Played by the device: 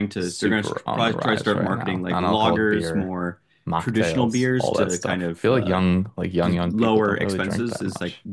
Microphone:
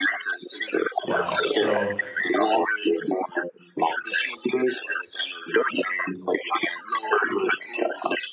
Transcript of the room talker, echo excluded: Wow. So,

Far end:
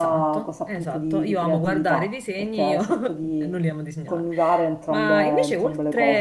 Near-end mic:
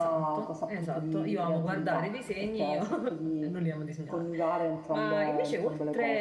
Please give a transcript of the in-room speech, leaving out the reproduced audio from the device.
none

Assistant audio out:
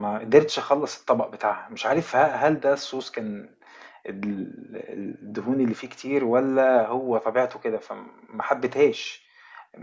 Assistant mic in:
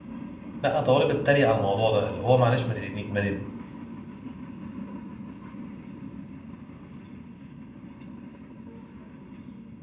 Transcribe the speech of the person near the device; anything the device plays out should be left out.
لا طالب اتريق على الموضوع ده اللي هو معلش ما تديني ما تديني-

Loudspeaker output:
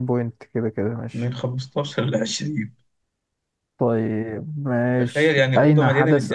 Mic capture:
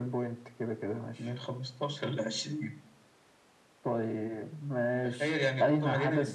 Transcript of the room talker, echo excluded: none

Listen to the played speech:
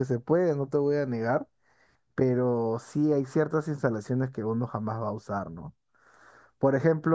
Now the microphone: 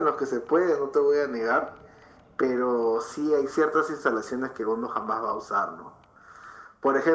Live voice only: none

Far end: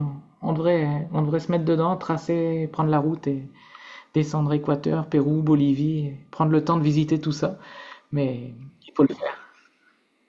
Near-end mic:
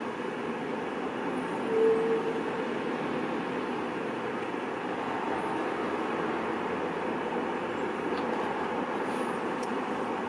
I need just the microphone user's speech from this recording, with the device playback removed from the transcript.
none

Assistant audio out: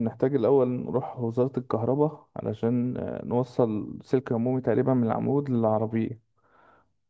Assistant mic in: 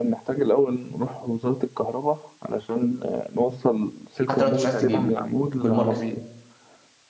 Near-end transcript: حتى لو انت مش عايز تجيبه بالماركتينج

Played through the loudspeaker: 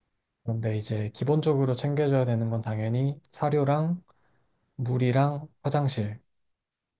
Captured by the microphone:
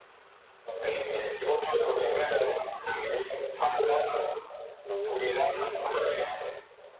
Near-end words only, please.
너무 좋네.

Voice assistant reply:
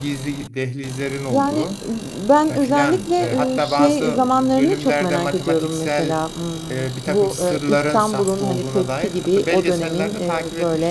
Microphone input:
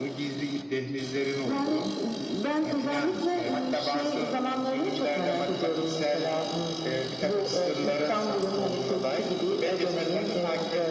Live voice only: none

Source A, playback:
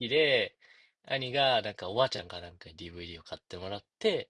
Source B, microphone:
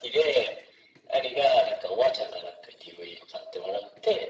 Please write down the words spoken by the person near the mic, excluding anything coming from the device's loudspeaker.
none

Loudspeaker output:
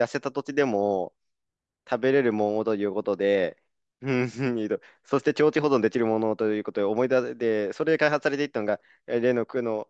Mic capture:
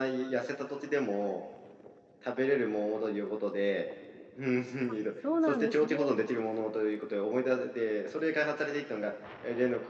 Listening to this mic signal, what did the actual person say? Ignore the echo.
あ、そうなんですね。

